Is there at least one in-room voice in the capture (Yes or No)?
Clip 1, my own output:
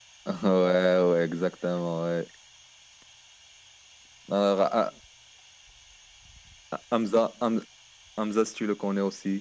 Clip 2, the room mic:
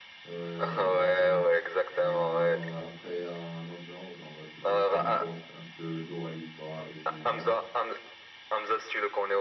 Yes